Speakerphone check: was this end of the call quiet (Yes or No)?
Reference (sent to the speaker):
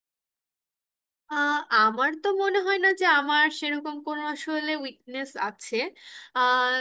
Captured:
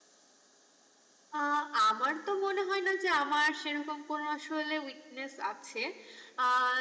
Yes